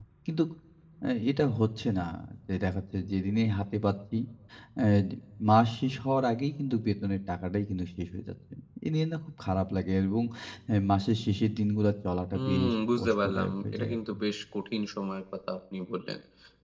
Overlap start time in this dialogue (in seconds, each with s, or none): 12.3 s